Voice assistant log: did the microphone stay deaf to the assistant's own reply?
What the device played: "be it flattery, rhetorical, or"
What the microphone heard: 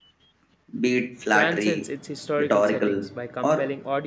No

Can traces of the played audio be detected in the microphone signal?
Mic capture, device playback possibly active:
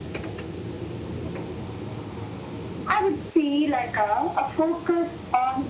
Yes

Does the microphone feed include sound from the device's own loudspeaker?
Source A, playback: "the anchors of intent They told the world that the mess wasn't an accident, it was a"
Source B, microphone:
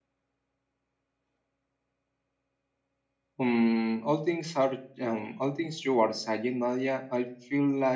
No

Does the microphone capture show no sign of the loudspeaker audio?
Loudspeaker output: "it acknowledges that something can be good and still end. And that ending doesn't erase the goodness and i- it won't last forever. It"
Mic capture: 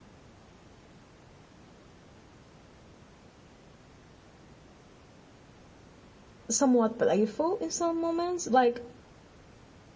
Yes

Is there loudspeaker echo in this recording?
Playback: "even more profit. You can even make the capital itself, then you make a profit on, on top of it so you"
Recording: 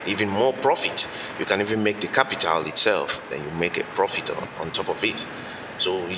Yes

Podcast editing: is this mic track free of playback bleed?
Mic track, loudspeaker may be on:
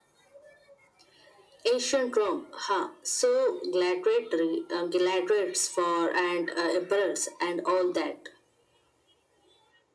No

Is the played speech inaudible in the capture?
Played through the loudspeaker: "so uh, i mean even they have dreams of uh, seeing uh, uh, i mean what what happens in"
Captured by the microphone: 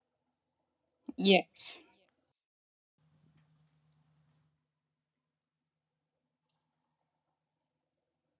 Yes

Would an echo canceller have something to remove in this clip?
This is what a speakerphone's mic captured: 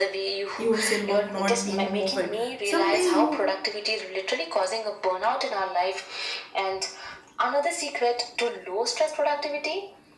Yes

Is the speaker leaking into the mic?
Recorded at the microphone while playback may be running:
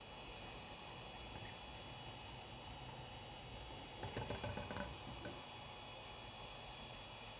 No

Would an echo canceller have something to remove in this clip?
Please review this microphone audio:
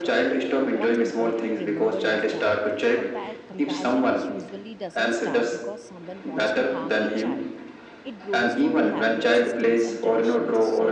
Yes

